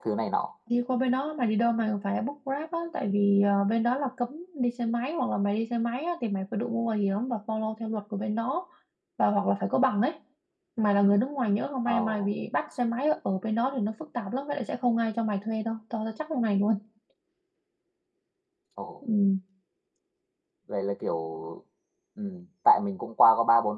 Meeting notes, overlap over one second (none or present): none